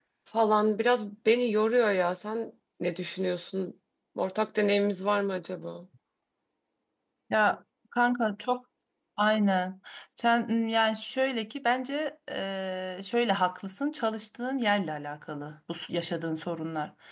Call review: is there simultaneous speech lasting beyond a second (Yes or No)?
No